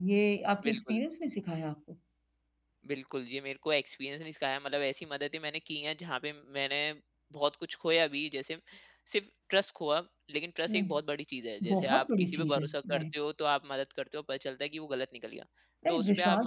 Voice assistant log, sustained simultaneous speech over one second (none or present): present